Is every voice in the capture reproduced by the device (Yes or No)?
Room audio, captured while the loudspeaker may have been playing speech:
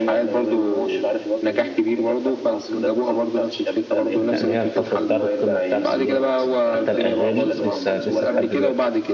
No